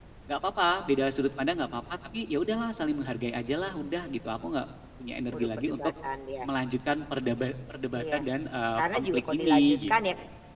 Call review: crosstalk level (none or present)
present